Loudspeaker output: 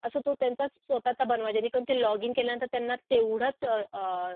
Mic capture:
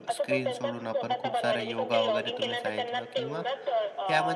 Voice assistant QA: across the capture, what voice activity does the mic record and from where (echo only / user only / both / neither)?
both